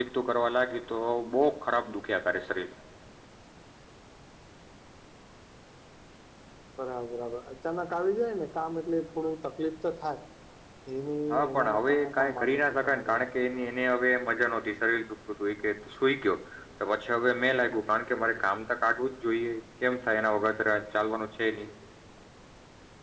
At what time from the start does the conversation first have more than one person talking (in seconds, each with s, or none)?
11.3 s